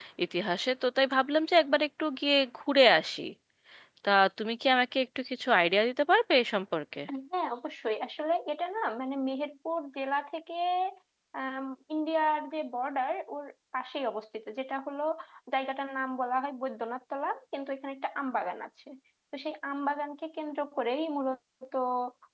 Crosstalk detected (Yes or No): No